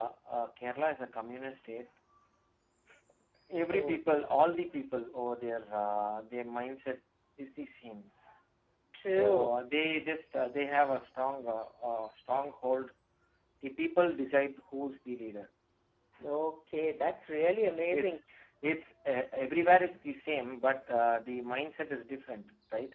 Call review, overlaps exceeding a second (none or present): none